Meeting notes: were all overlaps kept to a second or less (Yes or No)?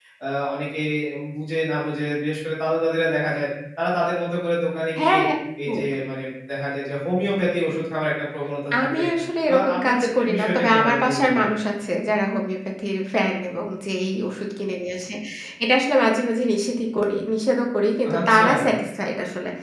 No